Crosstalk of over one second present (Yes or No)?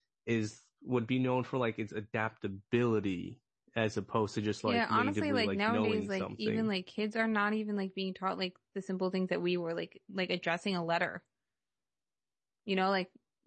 Yes